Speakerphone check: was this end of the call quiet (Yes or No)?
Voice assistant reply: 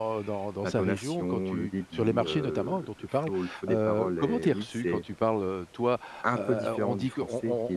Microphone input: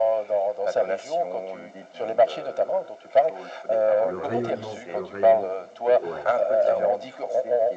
No